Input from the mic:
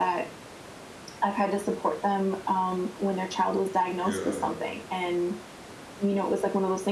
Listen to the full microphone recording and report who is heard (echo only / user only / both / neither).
both